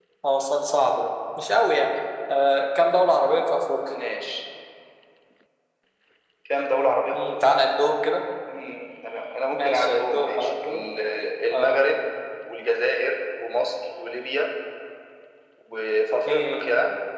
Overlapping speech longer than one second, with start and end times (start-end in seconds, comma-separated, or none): 9.5-10.8